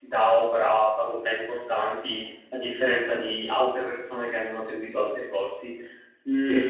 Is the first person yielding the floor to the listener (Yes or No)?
Yes